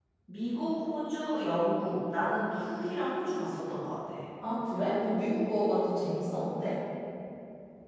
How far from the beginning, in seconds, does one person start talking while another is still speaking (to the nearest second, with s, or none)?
none